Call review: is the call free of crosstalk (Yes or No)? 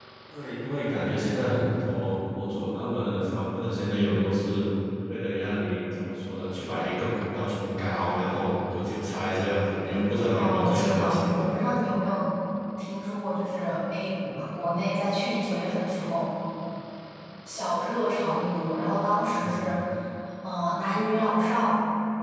No